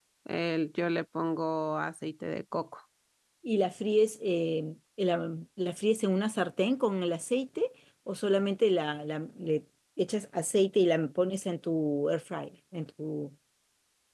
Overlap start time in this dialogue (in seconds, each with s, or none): none